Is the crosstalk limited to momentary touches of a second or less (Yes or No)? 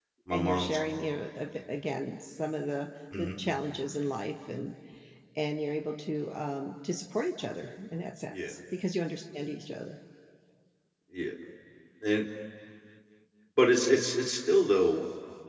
Yes